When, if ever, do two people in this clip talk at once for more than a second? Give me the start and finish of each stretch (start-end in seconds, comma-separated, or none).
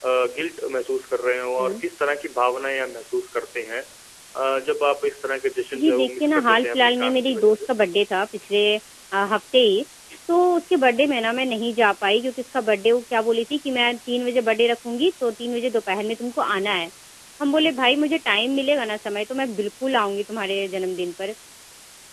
5.7-7.6